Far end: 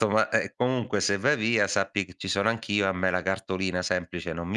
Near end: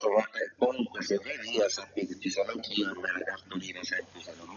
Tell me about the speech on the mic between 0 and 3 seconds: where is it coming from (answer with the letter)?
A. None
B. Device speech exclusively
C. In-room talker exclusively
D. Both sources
B